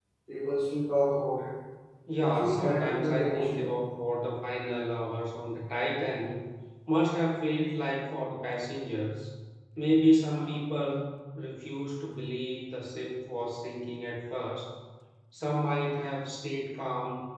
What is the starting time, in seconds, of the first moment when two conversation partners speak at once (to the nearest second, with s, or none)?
2 s